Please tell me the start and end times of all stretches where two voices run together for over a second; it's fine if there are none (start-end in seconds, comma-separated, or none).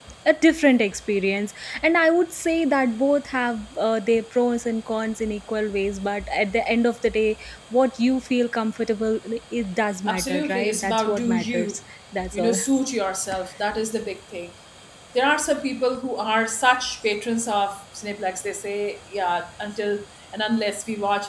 10.1-11.8